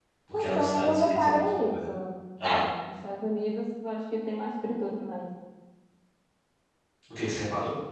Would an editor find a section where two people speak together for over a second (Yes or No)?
Yes